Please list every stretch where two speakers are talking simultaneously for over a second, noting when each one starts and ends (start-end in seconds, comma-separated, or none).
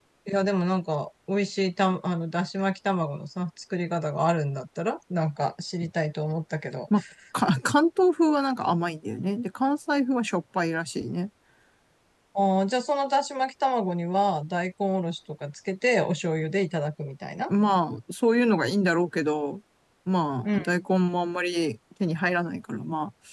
none